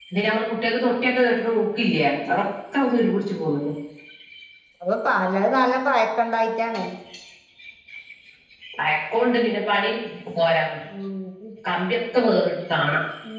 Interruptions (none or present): none